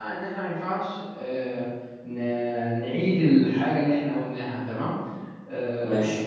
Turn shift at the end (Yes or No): No